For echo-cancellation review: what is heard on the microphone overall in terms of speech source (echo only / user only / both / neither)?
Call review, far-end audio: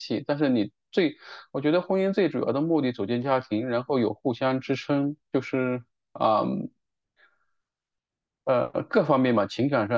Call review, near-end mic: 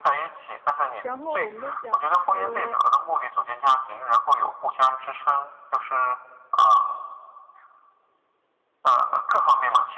both